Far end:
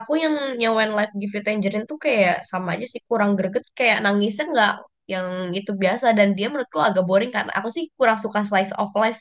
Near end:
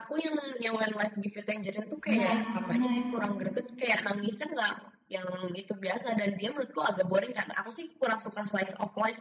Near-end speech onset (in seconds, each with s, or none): 2.1 s